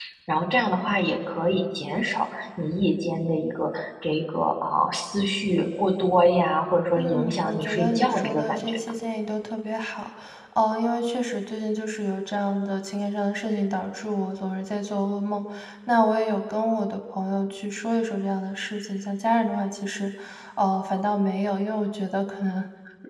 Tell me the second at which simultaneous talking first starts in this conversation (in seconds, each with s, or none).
7.0 s